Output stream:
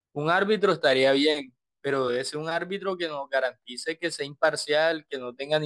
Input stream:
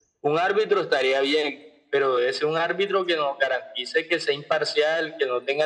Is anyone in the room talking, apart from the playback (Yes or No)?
No